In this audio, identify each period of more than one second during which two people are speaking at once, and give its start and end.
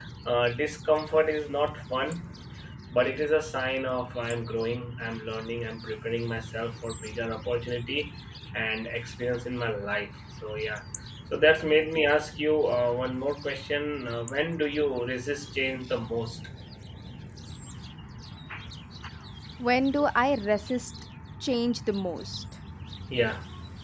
none

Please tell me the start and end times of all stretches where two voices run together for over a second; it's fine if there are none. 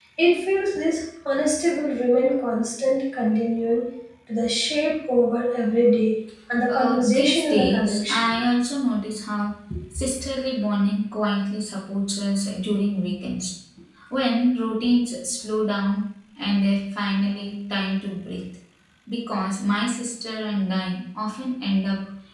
6.7-8.3

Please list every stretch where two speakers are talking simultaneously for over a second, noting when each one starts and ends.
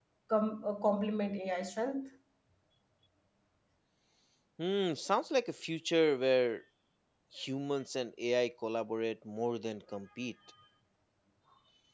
none

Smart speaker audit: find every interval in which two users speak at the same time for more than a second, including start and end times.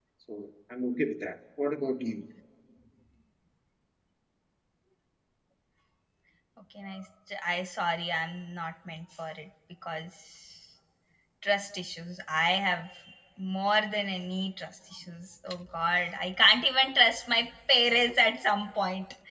none

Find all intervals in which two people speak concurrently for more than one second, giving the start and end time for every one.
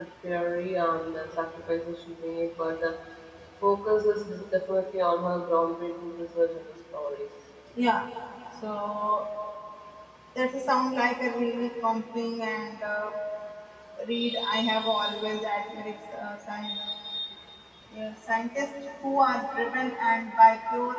none

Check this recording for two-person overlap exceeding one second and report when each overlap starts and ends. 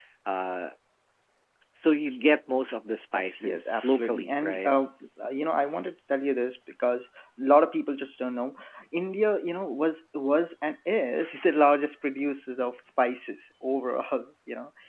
3.2-4.7

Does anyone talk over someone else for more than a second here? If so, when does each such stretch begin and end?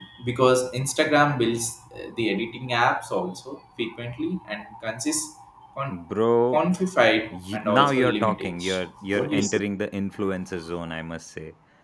7.3-8.6

